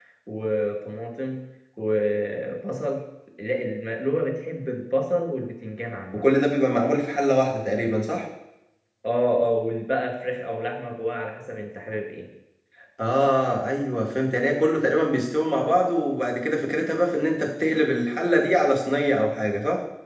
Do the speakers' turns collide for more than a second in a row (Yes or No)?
No